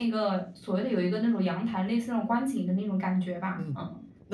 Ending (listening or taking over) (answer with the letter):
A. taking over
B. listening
A